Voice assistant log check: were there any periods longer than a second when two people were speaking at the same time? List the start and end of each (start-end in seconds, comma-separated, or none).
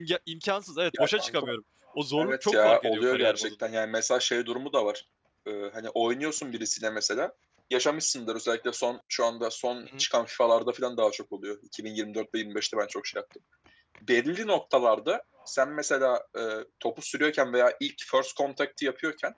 2.2-3.5